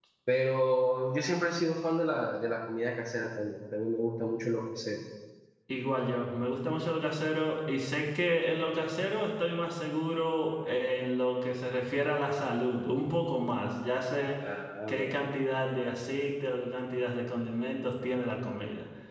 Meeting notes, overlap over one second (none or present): none